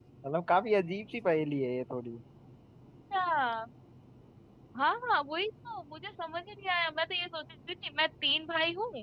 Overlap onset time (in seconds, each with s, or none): none